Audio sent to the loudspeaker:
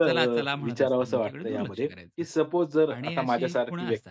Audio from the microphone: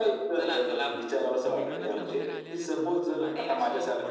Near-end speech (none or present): present